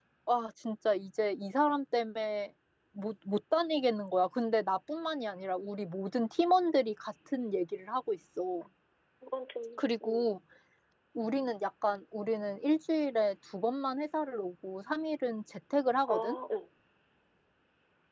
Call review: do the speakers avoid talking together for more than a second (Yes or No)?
Yes